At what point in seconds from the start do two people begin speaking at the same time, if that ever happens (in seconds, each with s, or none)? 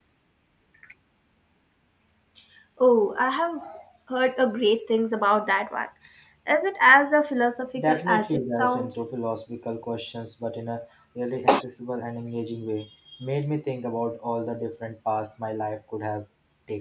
7.8 s